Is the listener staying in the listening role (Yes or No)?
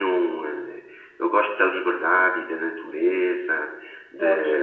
Yes